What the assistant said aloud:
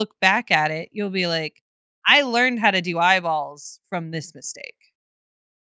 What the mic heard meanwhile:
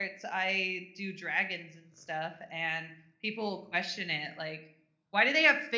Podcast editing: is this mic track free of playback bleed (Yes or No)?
Yes